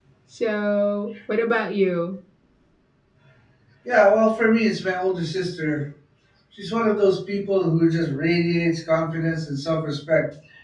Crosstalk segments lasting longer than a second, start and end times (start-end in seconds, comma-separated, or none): none